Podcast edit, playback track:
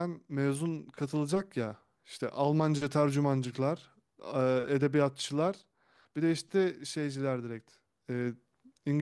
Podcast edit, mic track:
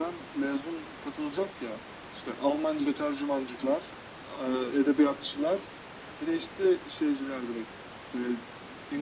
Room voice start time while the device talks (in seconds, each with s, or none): none